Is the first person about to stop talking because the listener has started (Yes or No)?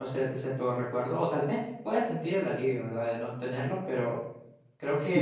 Yes